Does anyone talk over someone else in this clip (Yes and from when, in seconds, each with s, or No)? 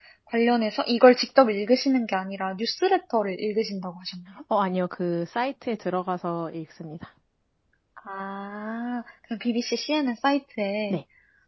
No